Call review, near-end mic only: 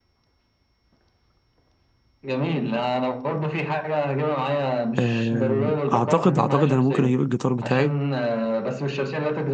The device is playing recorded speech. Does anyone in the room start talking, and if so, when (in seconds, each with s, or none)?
5.0 s